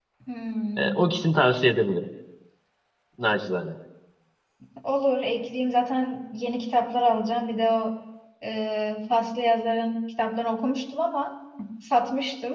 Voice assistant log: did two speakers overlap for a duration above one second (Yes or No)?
No